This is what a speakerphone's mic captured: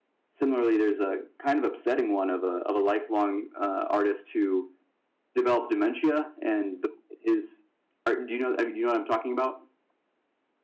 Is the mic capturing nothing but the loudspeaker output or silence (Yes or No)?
Yes